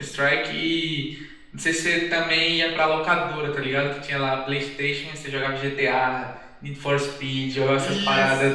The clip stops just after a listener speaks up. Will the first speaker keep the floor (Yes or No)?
No